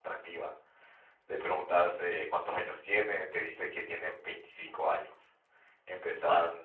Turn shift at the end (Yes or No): No